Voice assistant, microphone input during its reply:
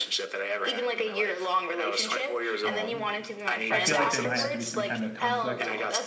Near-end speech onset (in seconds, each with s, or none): 2.6 s